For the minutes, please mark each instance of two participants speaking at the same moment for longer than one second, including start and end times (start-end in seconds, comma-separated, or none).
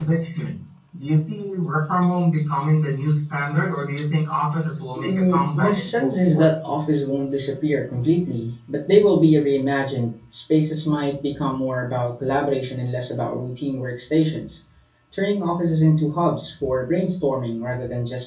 5.0-6.5